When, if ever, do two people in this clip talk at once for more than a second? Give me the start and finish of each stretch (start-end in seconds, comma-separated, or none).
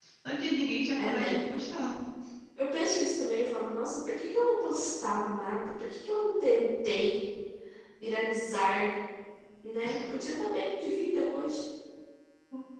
none